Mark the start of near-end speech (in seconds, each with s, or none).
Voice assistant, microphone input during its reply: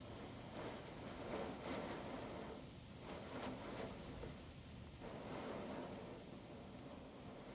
none